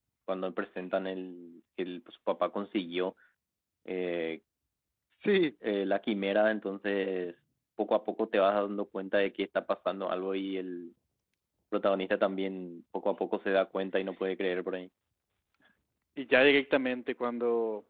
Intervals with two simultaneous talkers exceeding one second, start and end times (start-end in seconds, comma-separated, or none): none